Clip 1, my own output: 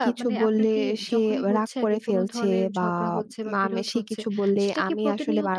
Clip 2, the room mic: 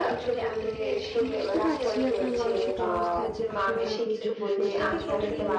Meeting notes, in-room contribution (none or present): present